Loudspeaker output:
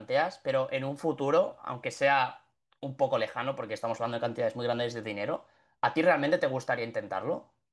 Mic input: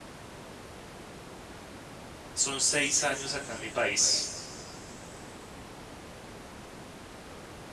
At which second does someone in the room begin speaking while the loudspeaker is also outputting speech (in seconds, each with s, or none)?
2.3 s